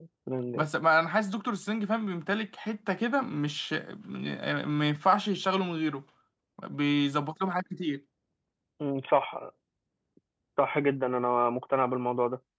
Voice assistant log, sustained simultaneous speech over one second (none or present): none